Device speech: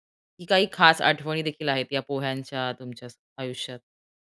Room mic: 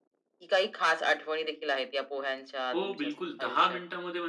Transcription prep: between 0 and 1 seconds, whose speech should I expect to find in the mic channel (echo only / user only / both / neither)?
echo only